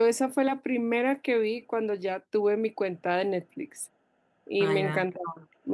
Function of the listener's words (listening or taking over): listening